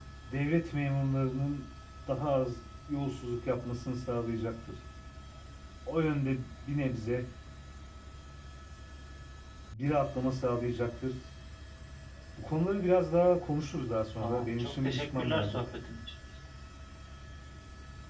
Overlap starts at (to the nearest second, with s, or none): 14 s